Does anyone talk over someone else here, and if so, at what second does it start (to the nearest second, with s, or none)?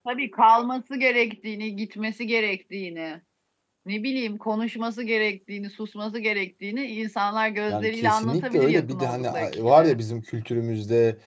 8 s